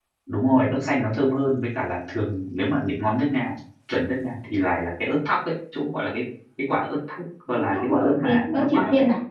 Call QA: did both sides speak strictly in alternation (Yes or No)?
No